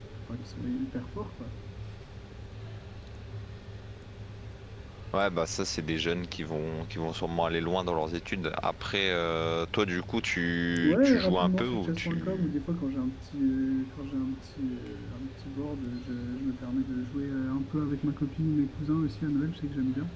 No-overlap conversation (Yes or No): No